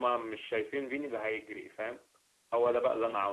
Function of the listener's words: listening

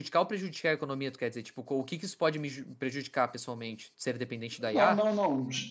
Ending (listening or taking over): taking over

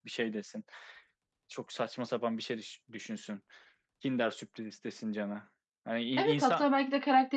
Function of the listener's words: taking over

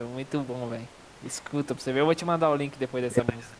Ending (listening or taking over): taking over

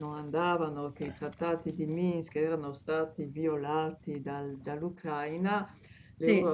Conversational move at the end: listening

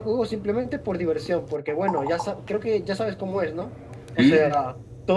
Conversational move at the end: listening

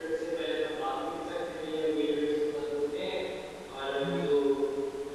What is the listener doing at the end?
listening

